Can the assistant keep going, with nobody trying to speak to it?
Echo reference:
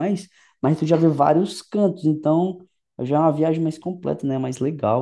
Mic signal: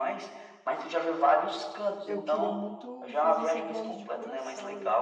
No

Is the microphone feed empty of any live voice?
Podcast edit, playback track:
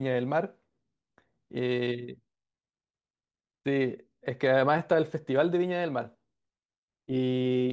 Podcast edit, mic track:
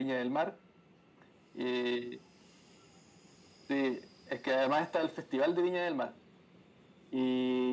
Yes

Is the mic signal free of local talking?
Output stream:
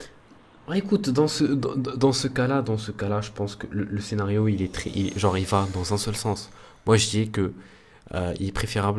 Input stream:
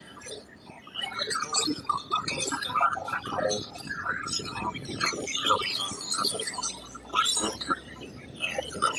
Yes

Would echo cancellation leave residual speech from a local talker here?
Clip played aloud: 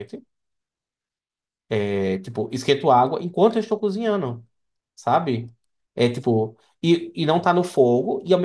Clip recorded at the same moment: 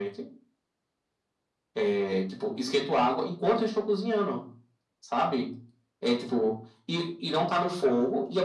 No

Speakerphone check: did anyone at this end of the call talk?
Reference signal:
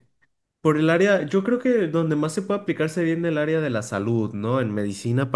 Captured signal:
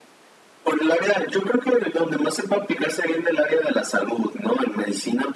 No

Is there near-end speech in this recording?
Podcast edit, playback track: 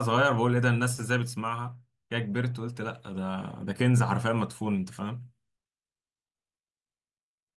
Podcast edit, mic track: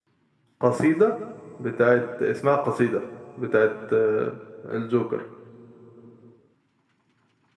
Yes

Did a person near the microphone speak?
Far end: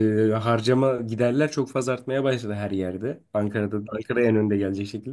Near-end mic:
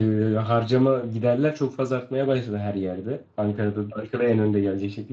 No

